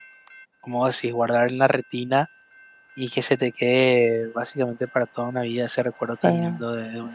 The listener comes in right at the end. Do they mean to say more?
No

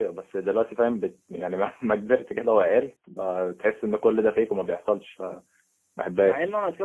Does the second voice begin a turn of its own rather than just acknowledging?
Yes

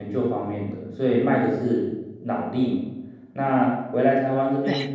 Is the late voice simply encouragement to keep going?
Yes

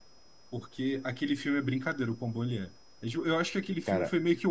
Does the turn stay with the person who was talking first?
Yes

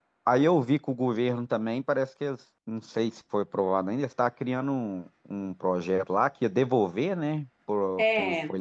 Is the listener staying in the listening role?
No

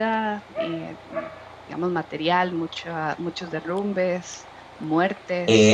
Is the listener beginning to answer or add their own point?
Yes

